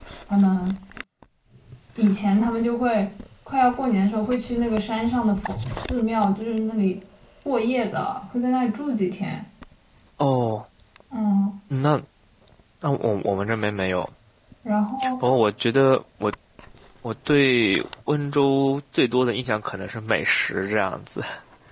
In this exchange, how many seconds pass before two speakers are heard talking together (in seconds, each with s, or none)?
none